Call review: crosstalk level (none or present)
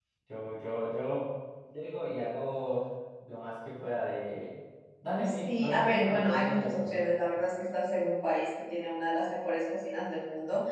present